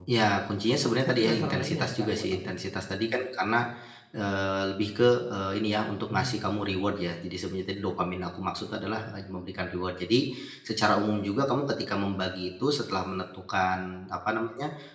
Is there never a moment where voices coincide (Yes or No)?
No